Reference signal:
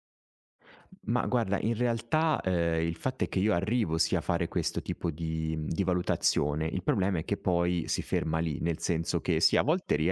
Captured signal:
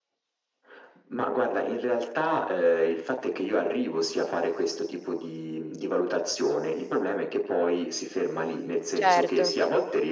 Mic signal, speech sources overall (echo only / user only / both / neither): both